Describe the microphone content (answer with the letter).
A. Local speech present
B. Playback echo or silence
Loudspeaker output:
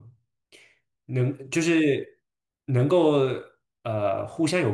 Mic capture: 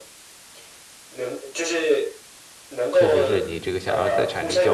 A